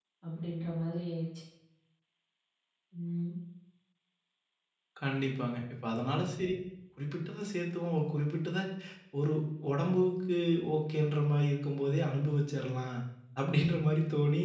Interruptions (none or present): none